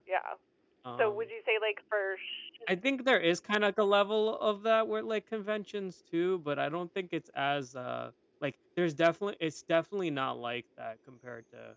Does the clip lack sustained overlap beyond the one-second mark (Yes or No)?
Yes